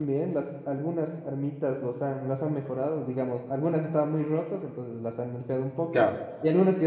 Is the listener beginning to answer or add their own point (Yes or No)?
No